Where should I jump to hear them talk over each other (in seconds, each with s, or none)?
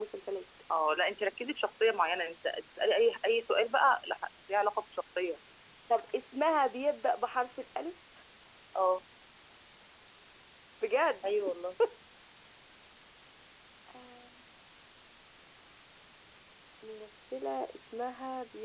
none